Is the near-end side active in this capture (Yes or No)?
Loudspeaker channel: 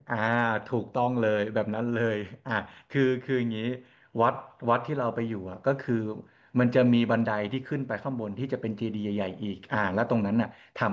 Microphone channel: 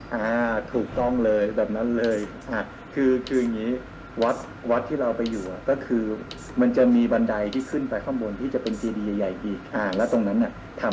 No